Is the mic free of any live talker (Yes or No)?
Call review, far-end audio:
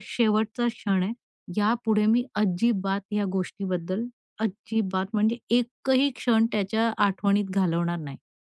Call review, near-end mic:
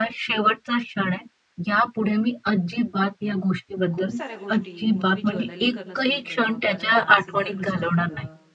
No